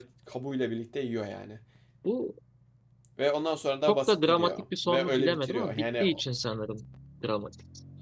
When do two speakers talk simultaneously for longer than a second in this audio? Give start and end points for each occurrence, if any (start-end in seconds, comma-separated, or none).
3.9-6.0